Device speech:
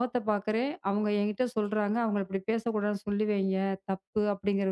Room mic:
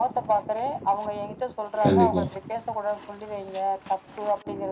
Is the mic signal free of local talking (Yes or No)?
No